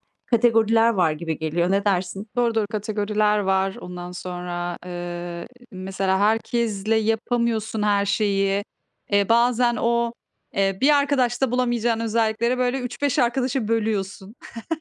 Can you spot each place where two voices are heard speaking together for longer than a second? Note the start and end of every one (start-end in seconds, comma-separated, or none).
none